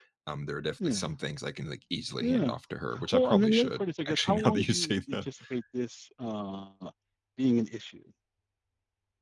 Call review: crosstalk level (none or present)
present